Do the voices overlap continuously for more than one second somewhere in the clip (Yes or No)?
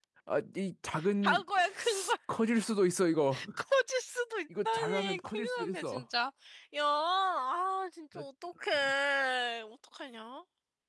Yes